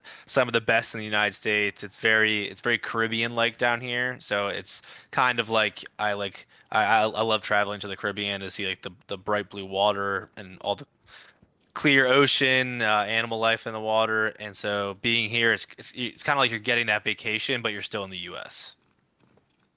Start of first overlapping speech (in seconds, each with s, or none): none